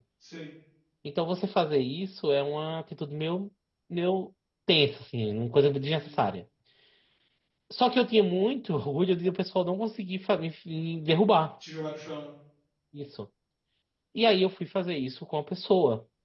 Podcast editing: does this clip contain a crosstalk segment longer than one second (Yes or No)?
No